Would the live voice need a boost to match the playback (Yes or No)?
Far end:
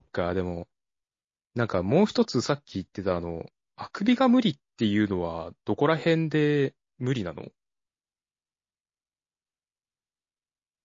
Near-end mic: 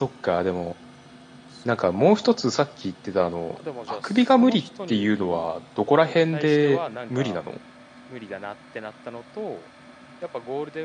Yes